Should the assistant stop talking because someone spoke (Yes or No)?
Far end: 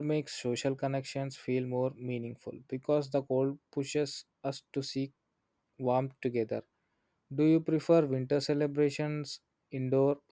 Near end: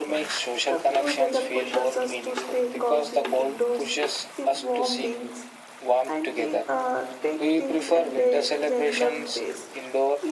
Yes